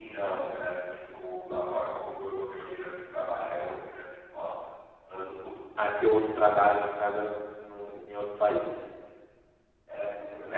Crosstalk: none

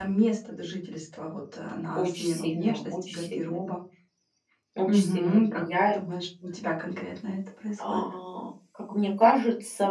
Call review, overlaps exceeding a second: present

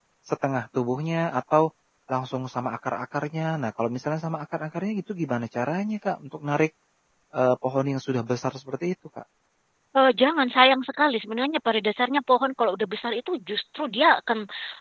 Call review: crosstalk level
none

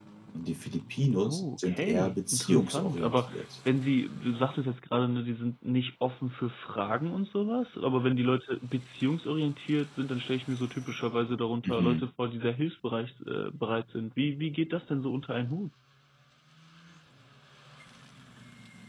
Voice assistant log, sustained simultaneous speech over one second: present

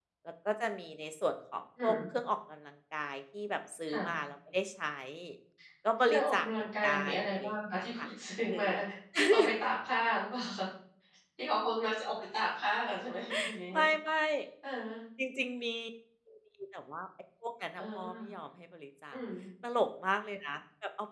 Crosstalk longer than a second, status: present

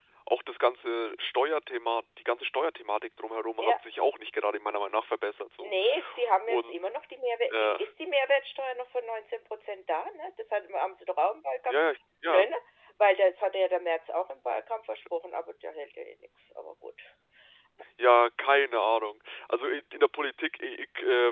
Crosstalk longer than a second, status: none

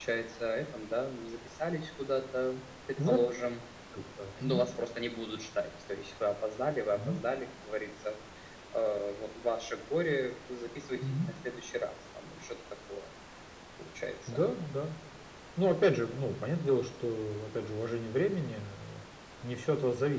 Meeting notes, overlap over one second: none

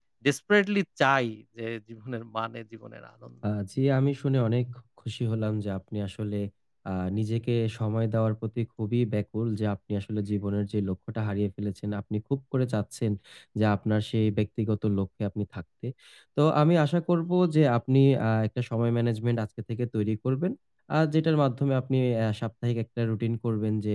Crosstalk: none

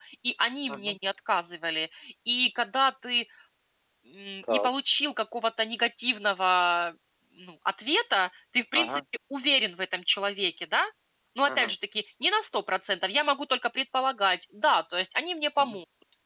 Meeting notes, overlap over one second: none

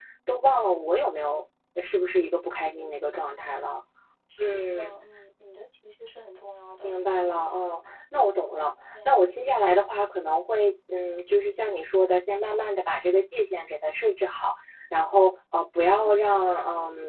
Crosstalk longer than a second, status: none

